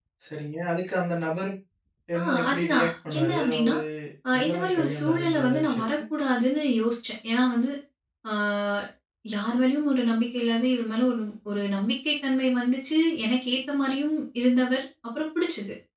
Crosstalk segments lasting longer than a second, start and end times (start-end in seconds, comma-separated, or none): 2.2-3.7, 4.4-5.8